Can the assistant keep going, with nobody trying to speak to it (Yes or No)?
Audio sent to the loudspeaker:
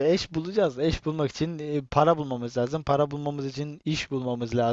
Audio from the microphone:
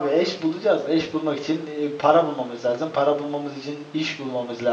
Yes